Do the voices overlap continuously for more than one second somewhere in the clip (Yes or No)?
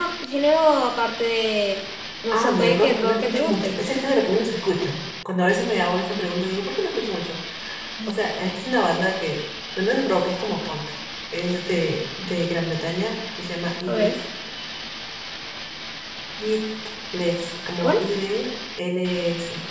Yes